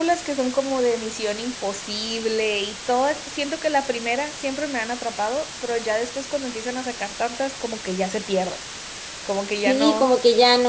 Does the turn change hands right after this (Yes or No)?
Yes